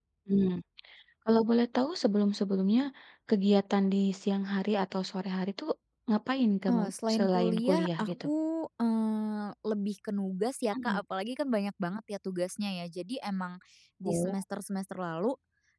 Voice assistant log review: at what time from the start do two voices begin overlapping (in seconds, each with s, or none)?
6.7 s